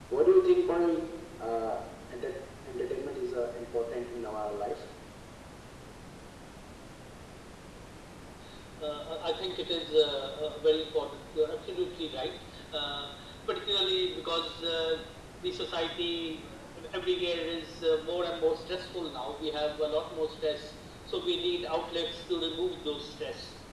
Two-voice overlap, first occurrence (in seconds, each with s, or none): none